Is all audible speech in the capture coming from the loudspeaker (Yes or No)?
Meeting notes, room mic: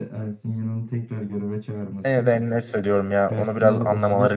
No